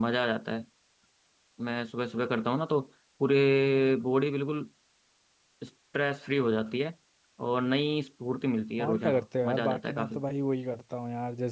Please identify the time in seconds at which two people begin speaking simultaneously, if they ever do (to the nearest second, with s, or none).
9 s